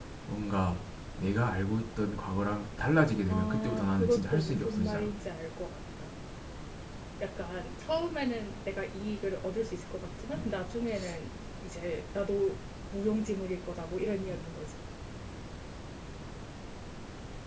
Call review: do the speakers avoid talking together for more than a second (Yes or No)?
No